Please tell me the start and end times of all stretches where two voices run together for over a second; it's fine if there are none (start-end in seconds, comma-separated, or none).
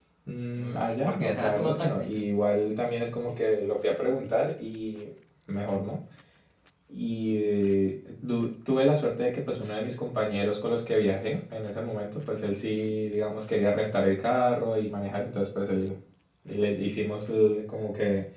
0.6-2.1